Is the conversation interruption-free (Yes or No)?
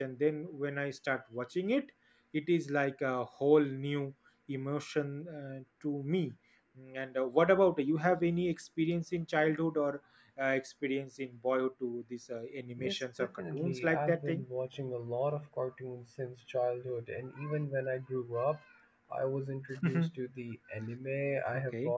No